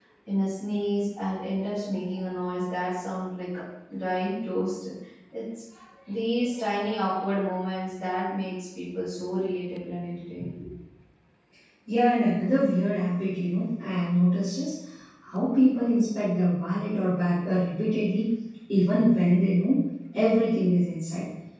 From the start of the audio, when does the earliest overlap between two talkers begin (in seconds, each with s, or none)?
none